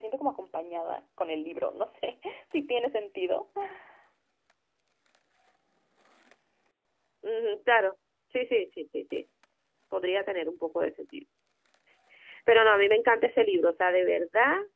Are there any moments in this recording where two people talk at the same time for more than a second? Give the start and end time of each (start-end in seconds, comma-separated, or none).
none